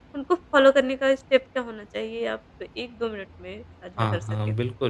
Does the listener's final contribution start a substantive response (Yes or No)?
Yes